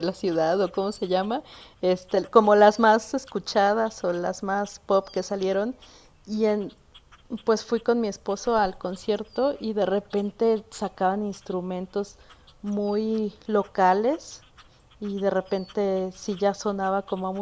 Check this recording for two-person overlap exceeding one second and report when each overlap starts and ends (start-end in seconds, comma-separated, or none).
none